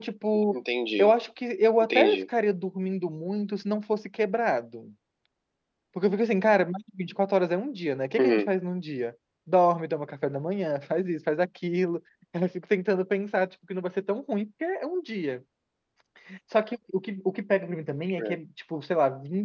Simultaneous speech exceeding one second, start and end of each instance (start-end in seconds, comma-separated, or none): none